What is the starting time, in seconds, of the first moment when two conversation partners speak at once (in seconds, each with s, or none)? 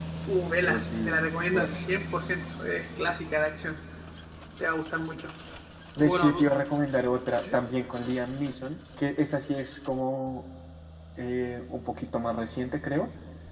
0.6 s